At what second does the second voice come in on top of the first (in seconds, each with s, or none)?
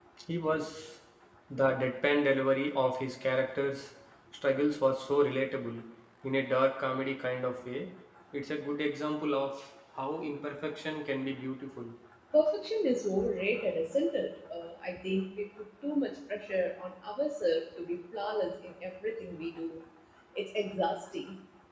none